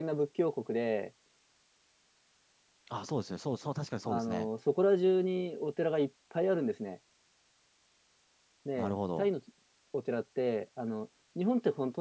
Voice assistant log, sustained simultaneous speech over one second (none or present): none